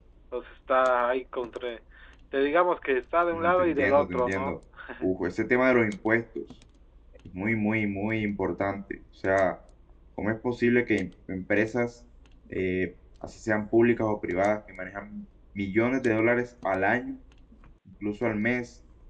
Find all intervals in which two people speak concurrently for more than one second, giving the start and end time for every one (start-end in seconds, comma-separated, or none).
3.3-4.5